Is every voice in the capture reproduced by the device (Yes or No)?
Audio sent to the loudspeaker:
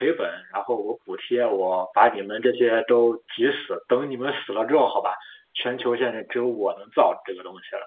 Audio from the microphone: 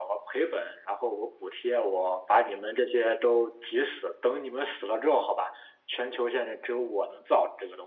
Yes